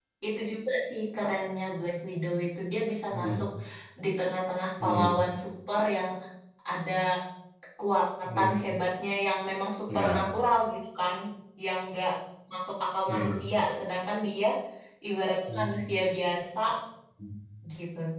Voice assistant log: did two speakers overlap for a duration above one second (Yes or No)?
No